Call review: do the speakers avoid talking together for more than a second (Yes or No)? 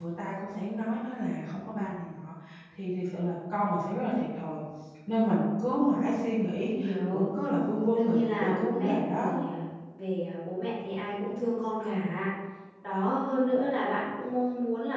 No